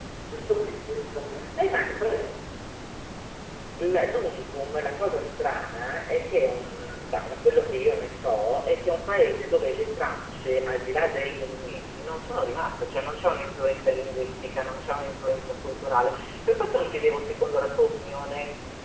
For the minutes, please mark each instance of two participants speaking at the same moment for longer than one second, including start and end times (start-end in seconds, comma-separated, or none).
none